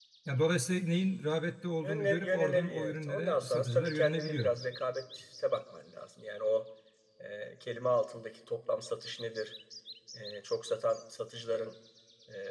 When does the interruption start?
2 s

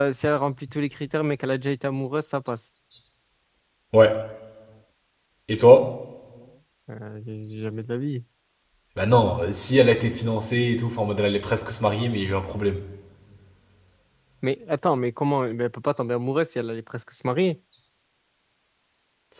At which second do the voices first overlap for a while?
none

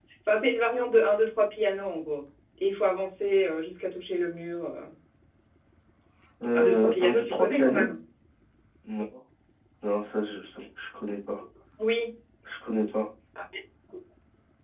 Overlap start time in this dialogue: 7 s

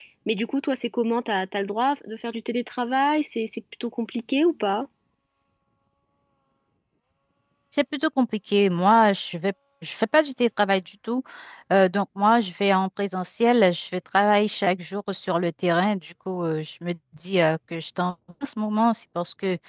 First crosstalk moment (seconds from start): none

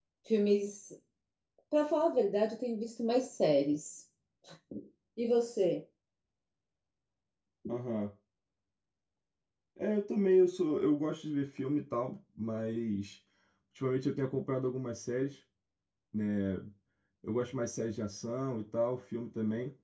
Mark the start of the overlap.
none

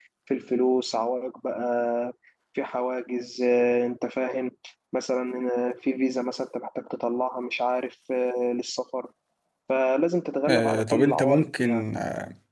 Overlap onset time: 10 s

